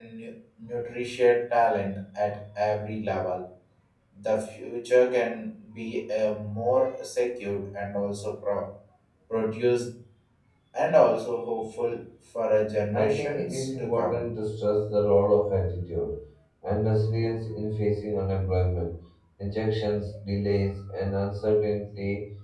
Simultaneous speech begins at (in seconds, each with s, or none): 12.9 s